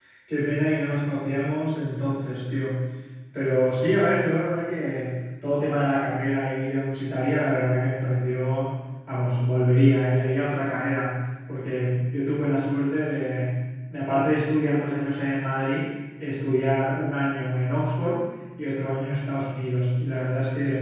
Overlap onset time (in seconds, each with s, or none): none